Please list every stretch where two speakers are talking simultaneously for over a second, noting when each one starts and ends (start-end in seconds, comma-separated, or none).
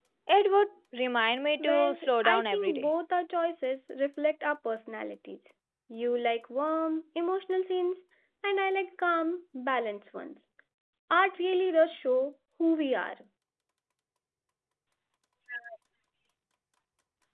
1.6-2.9